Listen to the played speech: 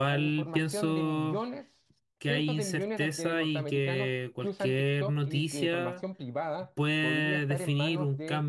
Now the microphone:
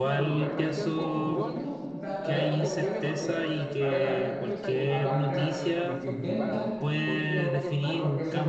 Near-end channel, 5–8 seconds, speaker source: both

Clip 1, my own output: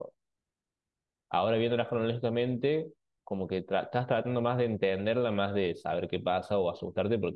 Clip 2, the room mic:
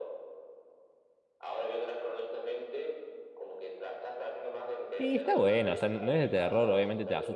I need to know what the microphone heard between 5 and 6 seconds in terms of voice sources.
both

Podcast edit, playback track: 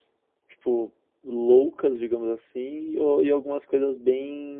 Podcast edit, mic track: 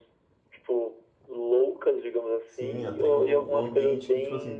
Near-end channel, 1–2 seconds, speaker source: echo only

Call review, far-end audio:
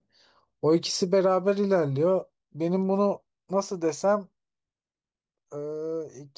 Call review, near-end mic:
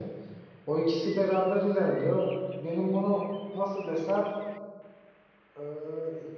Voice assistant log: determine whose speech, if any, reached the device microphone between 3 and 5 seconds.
echo only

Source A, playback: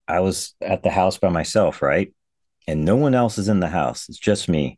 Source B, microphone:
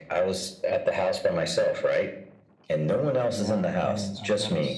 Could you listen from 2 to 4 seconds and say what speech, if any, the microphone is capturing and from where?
both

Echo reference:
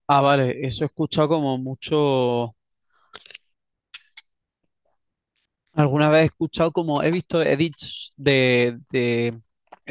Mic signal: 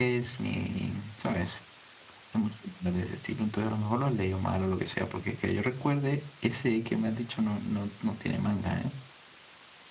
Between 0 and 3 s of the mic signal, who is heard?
user only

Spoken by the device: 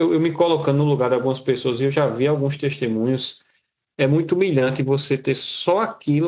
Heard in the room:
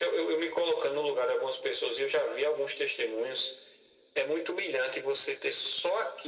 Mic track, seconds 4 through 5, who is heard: echo only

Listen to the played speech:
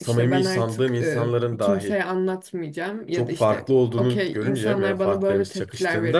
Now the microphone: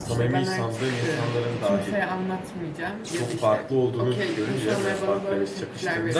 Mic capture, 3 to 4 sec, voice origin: echo only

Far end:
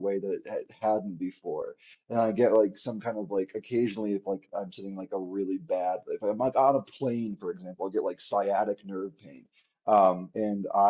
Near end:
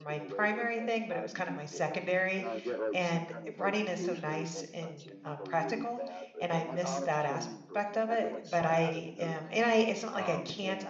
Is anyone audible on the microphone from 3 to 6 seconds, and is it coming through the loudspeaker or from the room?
both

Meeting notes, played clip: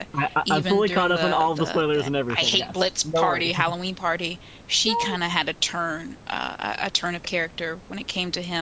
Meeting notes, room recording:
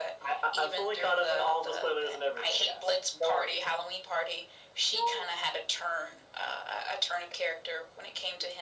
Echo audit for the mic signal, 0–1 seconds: echo only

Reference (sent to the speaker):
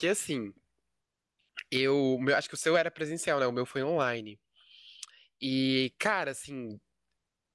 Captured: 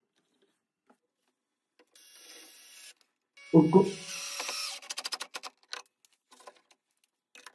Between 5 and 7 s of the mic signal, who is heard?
neither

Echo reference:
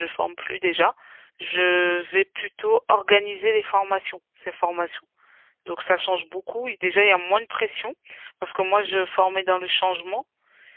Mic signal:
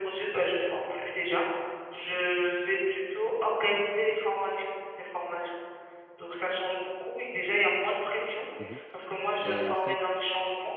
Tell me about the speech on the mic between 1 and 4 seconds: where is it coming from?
echo only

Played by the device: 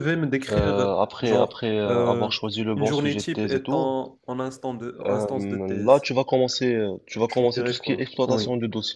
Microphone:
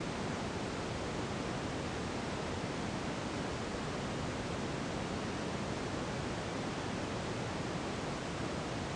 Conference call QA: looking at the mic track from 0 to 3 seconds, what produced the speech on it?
neither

